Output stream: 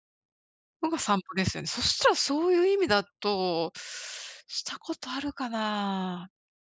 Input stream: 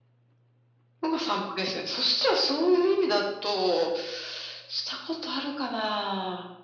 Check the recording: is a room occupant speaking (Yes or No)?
No